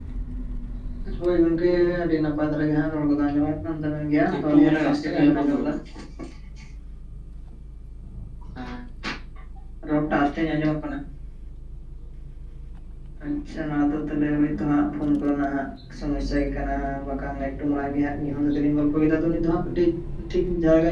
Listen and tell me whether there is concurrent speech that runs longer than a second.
Yes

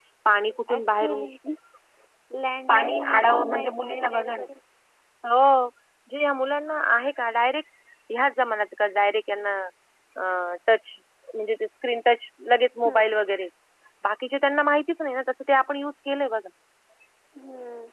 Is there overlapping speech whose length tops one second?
Yes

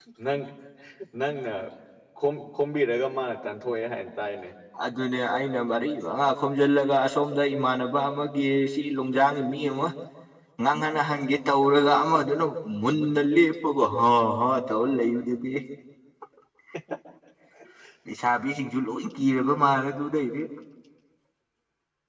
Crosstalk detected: No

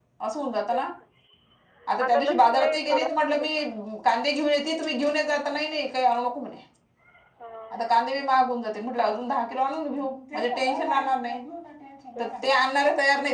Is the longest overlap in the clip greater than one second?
Yes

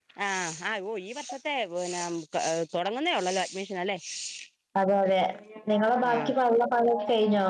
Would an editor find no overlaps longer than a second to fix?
Yes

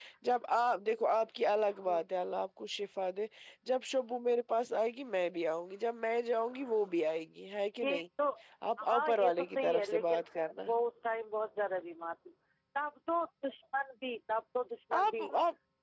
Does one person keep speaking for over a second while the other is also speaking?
Yes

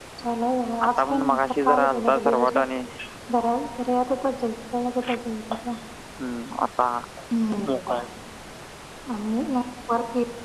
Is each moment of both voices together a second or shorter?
No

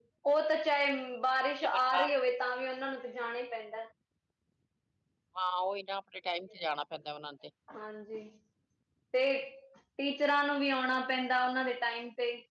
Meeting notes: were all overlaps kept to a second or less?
Yes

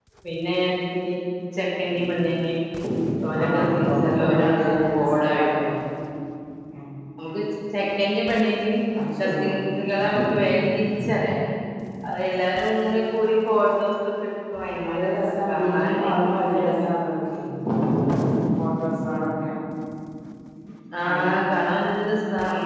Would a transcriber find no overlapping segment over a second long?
No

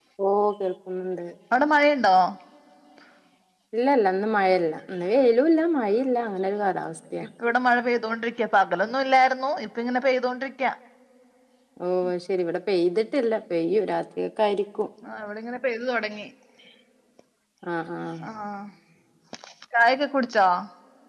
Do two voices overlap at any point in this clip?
No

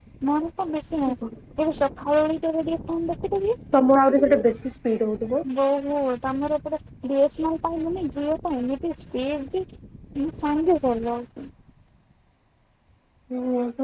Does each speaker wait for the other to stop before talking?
Yes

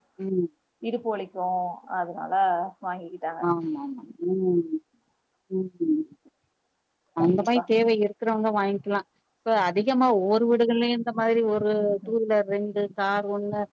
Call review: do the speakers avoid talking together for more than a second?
Yes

